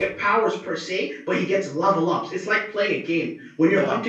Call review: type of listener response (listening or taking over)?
listening